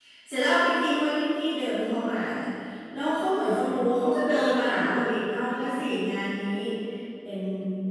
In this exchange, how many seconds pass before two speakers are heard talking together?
none

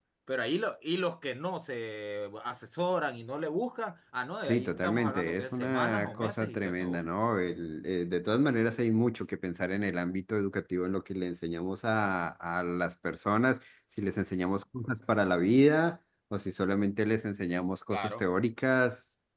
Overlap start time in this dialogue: 4.4 s

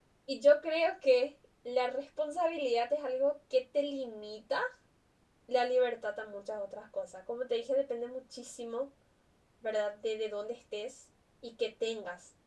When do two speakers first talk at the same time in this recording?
none

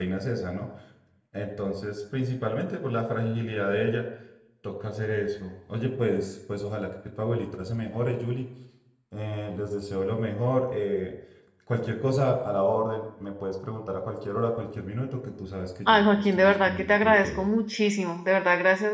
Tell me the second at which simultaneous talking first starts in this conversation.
15.9 s

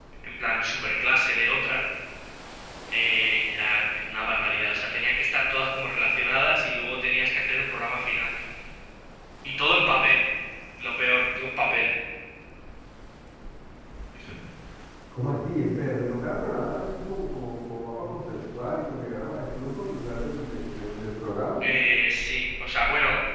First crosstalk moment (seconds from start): none

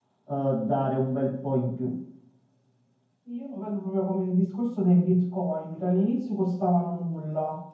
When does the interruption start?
none

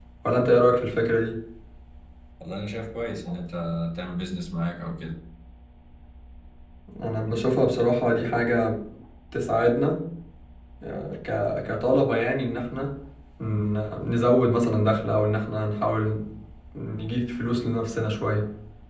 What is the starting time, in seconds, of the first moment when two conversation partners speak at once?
none

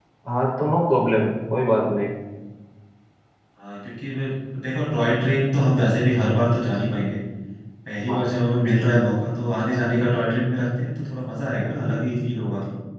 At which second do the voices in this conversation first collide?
none

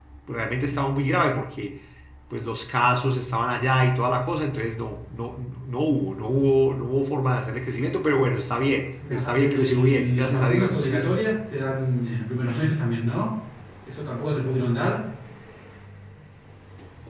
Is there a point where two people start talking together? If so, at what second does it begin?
9.0 s

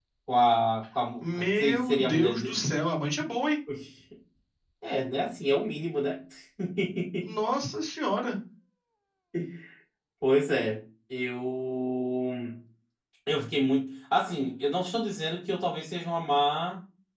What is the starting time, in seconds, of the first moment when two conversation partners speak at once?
1.2 s

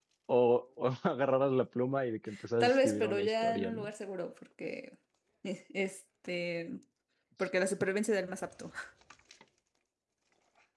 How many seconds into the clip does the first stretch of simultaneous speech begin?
2.6 s

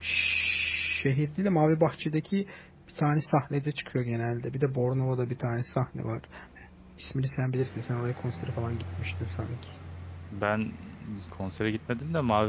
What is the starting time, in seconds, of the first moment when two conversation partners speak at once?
none

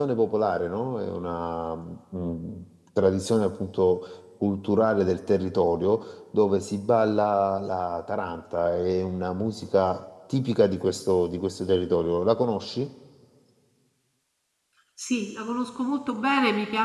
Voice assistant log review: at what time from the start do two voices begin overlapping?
none

